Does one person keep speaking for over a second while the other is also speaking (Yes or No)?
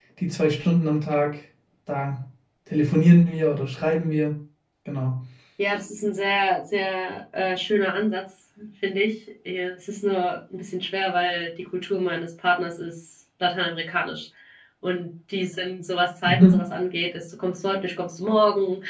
No